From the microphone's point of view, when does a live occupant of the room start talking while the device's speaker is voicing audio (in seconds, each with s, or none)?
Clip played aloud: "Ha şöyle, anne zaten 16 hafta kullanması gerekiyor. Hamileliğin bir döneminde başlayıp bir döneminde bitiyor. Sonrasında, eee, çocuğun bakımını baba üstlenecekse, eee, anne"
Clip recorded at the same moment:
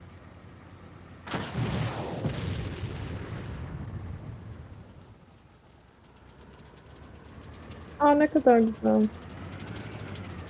8.0 s